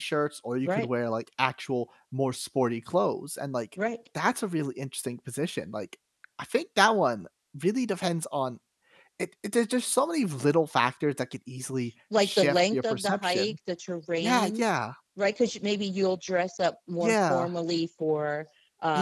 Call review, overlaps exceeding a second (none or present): present